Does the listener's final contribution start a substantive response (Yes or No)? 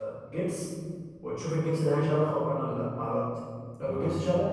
No